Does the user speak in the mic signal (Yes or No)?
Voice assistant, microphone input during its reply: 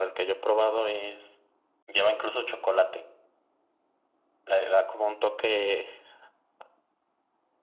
No